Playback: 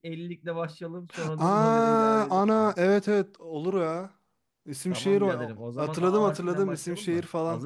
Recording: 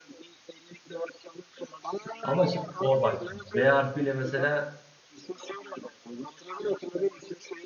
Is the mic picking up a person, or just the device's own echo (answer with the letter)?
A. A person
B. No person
A